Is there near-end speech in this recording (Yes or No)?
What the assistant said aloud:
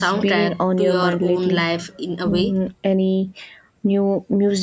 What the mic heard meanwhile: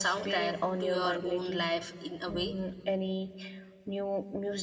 No